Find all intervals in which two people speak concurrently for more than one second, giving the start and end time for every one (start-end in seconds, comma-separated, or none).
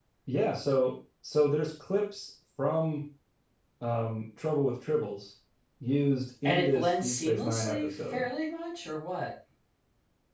6.4-8.2